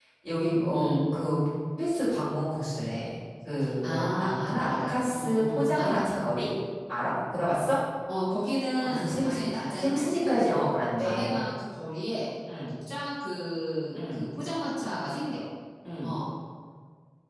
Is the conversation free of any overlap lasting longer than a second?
No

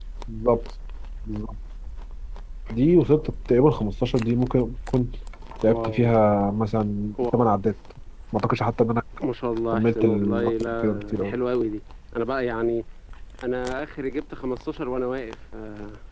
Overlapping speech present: Yes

